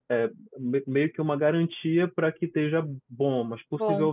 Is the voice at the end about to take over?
No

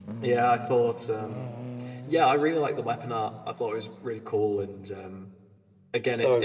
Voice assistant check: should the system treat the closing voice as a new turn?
No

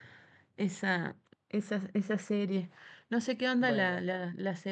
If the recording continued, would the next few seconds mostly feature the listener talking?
No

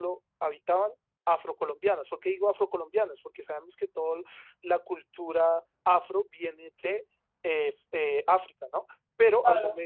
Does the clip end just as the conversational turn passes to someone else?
Yes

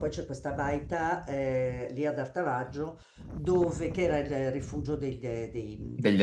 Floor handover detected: No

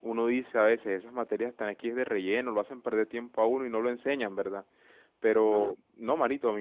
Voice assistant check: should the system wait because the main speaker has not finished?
Yes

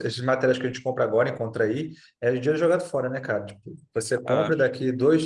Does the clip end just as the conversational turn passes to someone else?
No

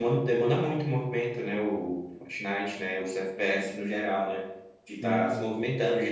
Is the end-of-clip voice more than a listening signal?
No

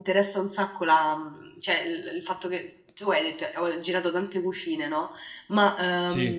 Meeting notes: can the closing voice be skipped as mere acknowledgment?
Yes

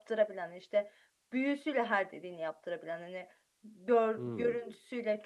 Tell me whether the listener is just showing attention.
Yes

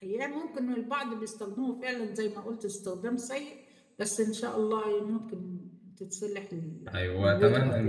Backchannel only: No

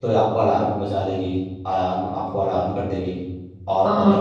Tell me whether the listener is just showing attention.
Yes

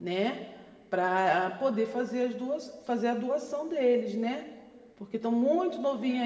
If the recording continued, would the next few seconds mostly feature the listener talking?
No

